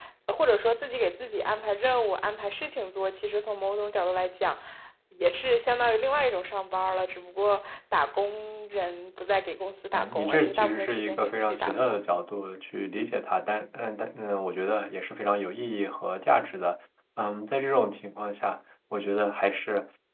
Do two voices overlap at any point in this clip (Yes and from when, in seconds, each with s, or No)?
Yes, from 9.9 s